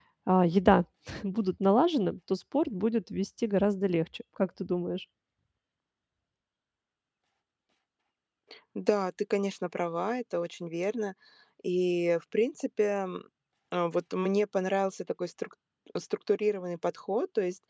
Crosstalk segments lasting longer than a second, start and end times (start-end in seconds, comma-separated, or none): none